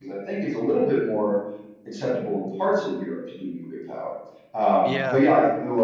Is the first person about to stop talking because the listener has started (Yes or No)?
No